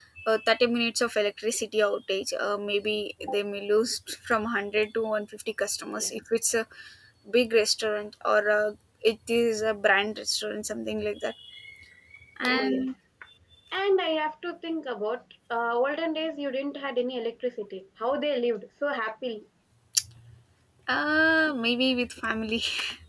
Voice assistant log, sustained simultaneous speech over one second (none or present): none